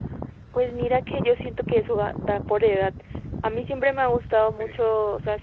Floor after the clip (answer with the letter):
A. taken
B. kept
B